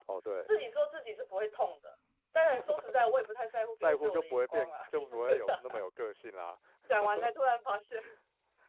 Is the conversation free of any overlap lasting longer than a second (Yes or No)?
No